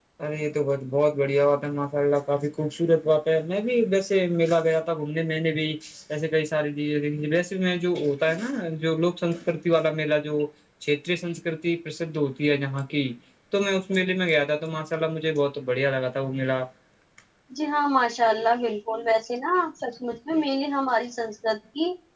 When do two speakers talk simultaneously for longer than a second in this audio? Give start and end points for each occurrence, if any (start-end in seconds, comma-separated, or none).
none